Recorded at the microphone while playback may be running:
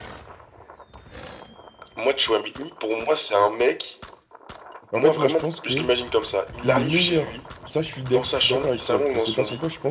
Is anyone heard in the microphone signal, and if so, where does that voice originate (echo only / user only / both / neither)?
both